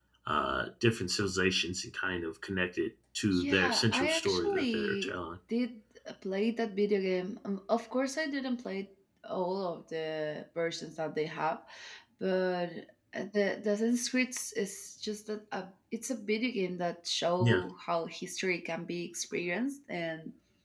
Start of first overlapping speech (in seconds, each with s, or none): 3.3 s